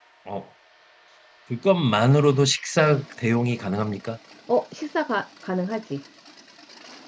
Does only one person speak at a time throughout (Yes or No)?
Yes